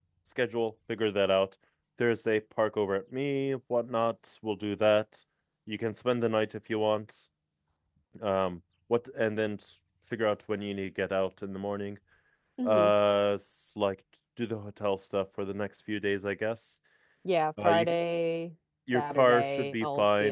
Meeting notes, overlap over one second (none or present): present